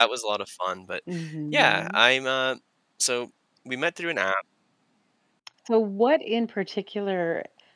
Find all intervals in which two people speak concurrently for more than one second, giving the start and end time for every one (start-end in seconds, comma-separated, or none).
none